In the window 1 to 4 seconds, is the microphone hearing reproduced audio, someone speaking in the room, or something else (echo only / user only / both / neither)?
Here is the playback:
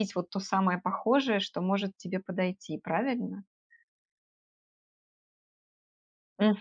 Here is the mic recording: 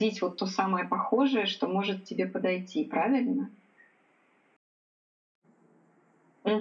echo only